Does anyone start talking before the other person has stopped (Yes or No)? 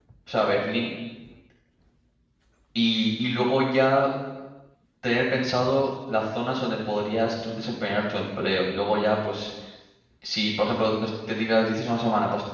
No